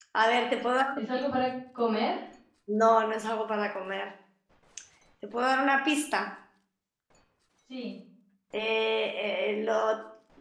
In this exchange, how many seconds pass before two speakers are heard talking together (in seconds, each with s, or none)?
none